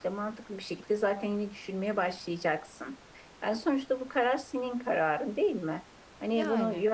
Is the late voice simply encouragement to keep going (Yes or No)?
Yes